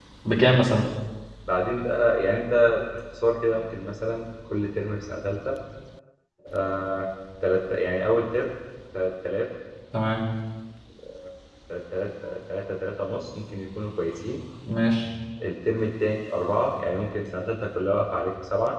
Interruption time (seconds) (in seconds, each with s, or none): none